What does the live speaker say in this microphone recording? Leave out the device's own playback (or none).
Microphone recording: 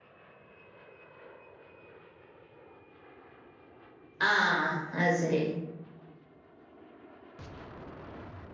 ആഹ് അഹ്സെരി